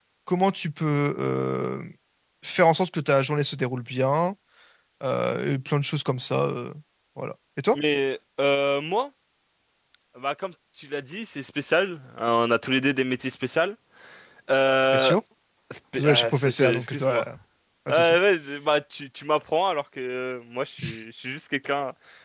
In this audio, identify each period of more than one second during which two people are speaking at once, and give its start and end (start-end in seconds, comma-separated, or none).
16.0-17.2